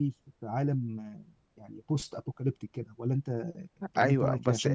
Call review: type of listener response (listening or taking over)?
taking over